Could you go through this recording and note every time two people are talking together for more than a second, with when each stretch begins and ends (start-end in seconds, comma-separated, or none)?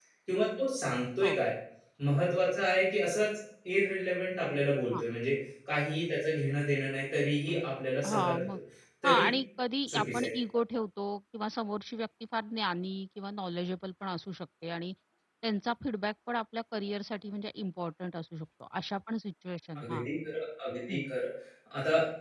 none